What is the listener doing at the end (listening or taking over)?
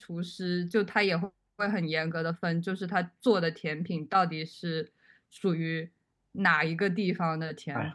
taking over